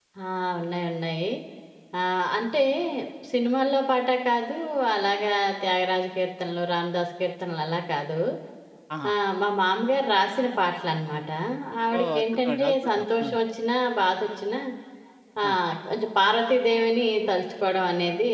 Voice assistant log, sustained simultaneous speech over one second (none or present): present